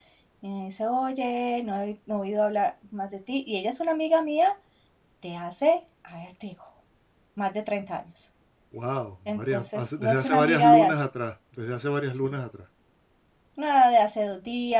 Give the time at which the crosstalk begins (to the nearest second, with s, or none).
9 s